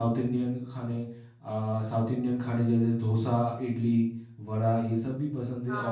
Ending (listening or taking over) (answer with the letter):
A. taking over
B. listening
B